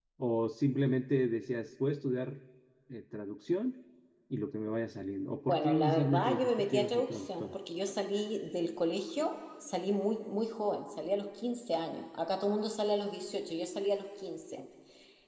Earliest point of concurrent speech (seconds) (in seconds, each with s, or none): 5.5 s